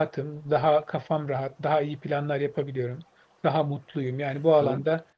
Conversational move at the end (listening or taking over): listening